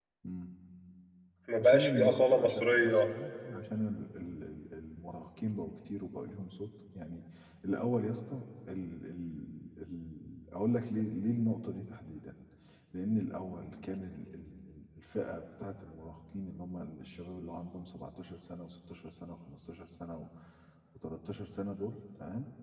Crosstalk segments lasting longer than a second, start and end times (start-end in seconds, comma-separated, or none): 1.6-3.0